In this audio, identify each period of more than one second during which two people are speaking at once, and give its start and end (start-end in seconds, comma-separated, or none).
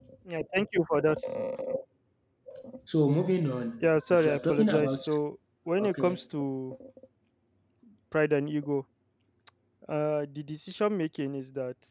3.8-5.0